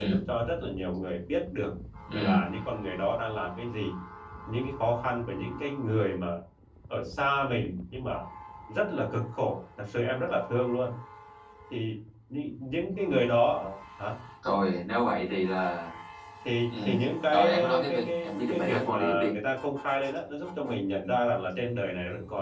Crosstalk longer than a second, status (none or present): present